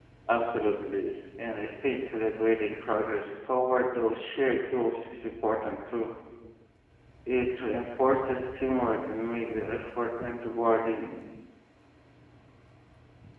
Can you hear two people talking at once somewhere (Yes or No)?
No